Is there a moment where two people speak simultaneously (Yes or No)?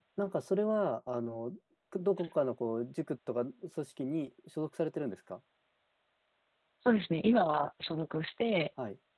No